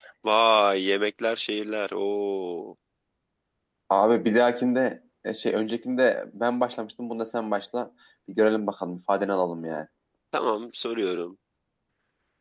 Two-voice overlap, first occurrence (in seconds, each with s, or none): none